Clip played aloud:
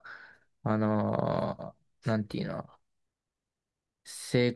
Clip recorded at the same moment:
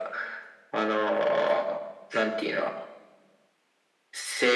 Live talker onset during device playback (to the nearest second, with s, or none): none